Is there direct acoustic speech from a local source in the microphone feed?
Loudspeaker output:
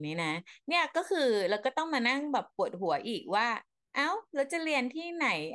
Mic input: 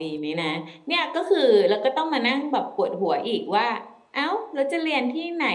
No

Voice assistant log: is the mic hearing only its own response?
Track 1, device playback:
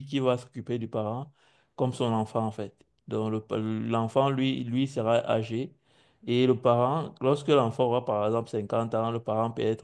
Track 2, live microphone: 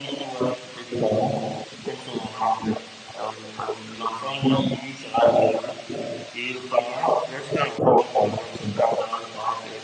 Yes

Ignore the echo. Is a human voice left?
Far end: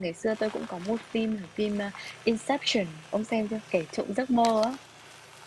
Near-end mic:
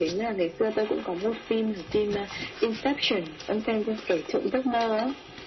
No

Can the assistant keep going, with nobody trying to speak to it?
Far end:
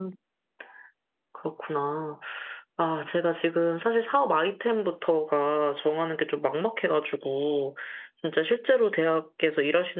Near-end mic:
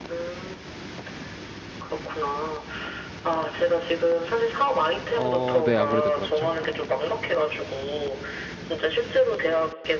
No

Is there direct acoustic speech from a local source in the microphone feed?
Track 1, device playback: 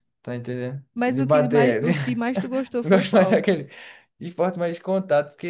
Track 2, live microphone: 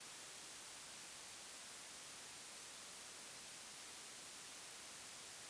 No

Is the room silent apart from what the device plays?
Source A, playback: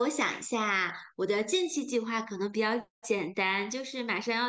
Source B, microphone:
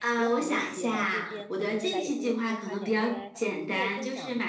No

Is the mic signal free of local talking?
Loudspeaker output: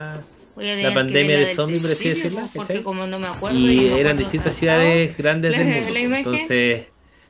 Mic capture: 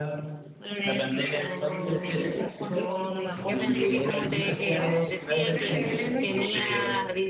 No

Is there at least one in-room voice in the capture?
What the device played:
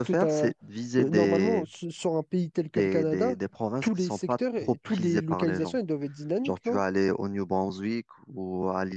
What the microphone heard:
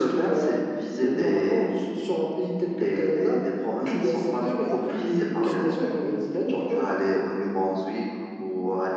Yes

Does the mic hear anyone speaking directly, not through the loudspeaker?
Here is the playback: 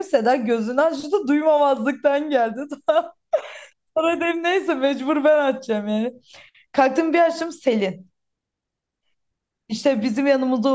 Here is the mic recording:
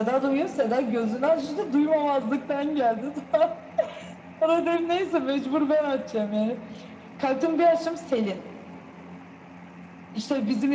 No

